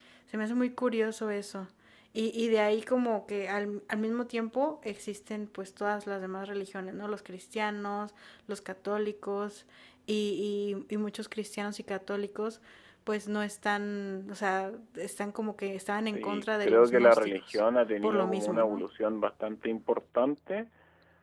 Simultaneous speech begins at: 16 s

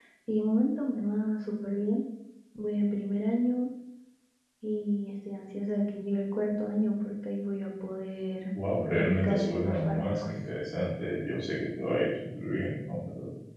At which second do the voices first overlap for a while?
9 s

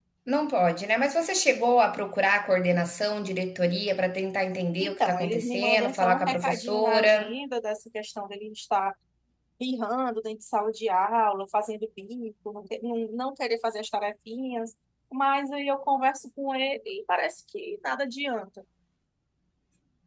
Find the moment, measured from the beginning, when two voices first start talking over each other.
5 s

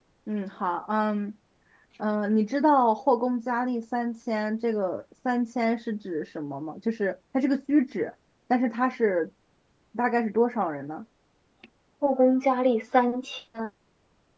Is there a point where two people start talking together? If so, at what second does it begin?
none

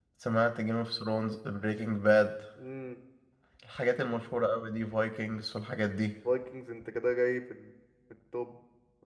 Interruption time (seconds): none

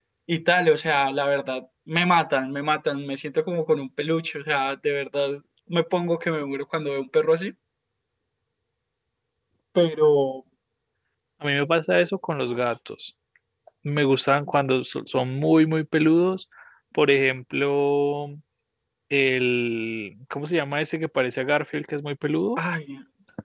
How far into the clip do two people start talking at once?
none

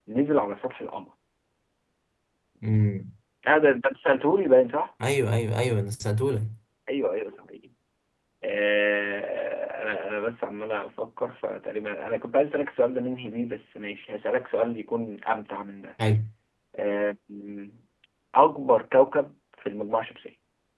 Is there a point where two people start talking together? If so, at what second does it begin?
none

